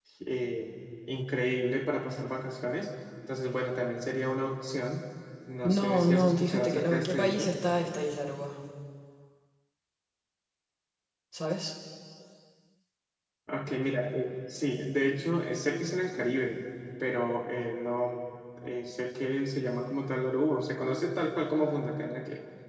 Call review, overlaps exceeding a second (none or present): present